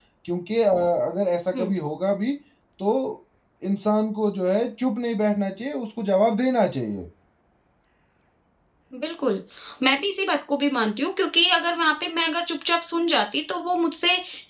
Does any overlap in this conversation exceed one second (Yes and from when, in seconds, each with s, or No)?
No